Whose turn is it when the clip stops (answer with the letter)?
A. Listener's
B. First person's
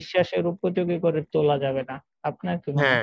A